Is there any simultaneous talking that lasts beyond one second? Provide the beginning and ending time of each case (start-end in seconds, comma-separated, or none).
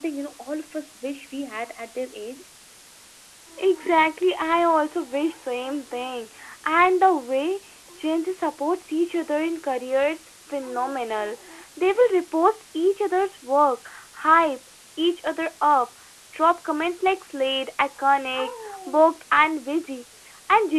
none